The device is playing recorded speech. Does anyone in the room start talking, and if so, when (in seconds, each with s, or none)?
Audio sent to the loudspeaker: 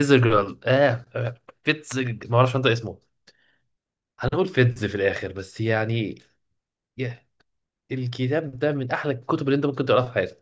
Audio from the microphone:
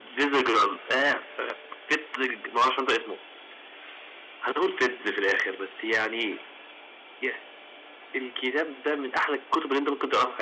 none